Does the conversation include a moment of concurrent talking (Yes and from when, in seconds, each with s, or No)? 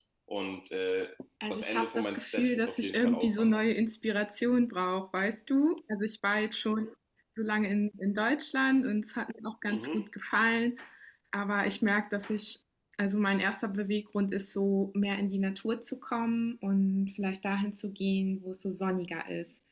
Yes, from 1.5 s